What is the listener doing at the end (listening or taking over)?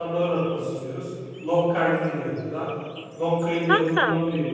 listening